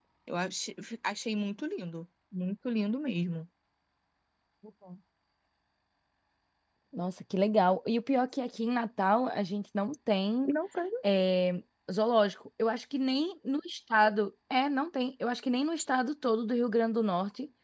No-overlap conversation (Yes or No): Yes